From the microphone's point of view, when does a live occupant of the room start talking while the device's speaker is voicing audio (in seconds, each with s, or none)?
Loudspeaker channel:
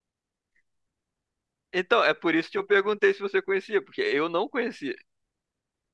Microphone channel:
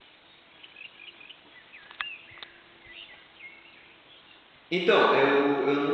4.7 s